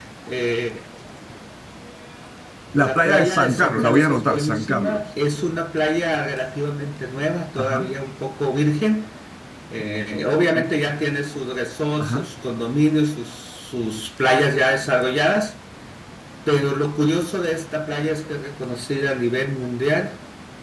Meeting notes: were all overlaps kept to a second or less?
No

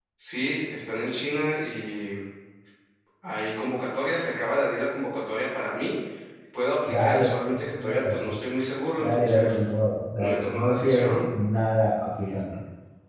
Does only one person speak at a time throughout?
No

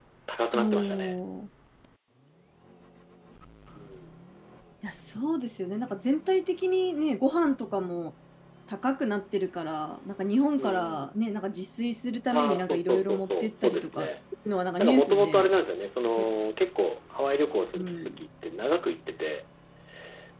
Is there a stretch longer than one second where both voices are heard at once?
Yes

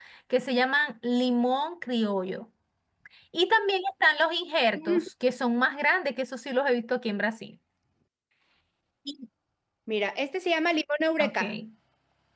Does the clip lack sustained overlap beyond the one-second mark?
Yes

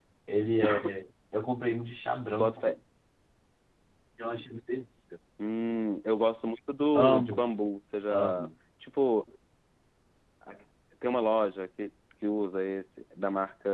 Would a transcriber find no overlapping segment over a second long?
Yes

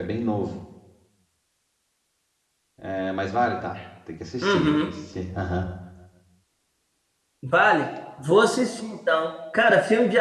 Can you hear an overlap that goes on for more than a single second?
No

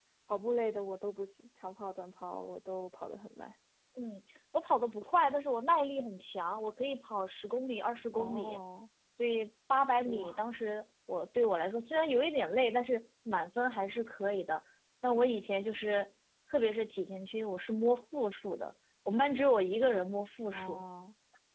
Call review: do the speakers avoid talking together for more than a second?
Yes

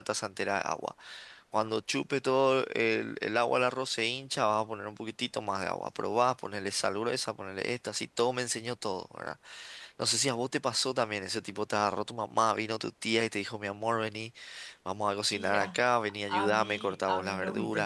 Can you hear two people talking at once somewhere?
Yes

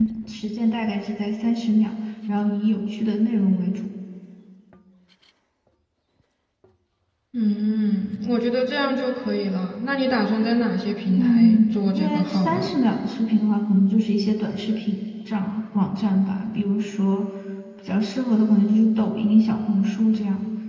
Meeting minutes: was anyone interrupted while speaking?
Yes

